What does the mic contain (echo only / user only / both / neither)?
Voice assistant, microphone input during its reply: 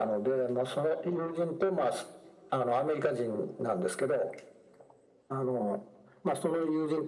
echo only